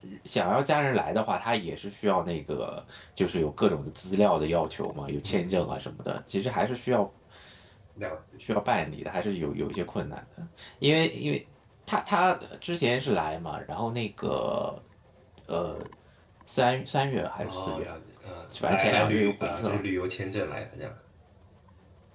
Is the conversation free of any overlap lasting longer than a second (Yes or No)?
No